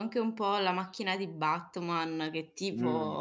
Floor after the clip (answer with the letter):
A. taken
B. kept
B